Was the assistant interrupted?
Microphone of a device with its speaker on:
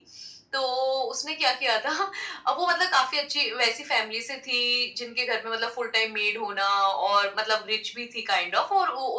No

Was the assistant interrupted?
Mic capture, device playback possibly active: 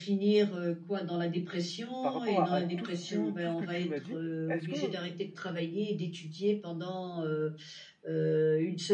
Yes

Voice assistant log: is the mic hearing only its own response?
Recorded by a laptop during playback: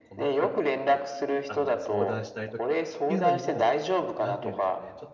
No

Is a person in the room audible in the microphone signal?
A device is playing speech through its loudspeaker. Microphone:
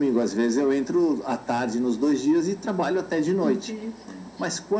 Yes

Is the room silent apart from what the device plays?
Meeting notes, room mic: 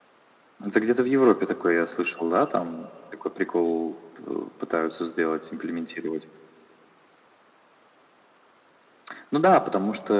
Yes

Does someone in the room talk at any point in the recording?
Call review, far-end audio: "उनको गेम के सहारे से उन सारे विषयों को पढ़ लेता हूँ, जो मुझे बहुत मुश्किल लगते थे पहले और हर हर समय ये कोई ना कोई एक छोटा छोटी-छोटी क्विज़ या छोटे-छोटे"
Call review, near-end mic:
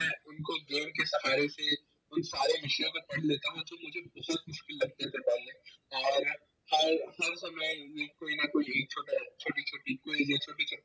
No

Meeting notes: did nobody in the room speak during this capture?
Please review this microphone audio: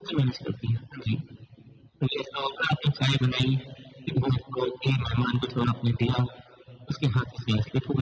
Yes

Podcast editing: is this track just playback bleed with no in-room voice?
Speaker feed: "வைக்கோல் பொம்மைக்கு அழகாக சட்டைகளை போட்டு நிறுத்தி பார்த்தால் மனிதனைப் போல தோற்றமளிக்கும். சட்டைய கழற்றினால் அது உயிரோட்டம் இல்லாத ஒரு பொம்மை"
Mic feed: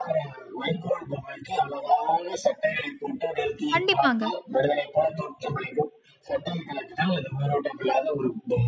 No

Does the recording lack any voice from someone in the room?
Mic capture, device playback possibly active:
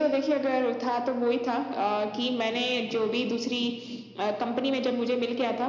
Yes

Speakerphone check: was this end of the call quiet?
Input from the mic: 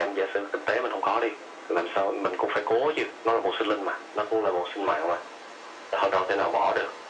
Yes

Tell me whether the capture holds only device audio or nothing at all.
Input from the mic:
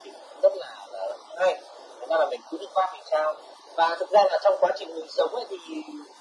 Yes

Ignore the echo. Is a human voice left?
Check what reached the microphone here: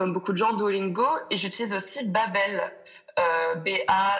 No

